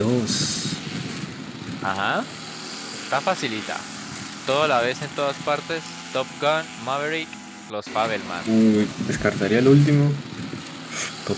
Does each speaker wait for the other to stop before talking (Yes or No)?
Yes